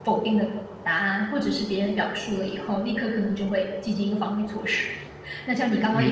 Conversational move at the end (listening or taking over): taking over